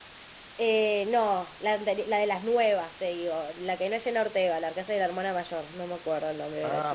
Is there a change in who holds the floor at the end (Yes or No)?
Yes